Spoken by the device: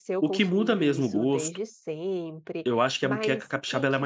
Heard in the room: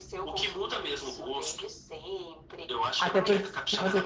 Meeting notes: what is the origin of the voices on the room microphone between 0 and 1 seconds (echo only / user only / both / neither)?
echo only